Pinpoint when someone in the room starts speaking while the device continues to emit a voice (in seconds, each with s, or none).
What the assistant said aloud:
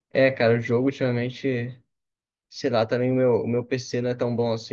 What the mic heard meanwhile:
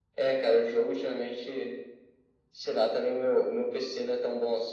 none